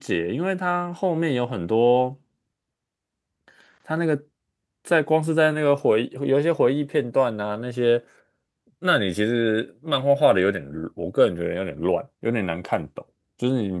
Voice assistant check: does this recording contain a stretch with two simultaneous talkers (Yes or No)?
No